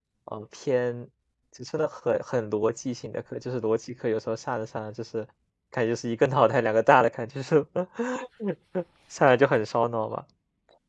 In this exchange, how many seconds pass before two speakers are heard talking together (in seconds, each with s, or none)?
none